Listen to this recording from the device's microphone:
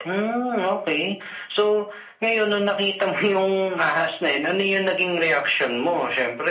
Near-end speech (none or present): none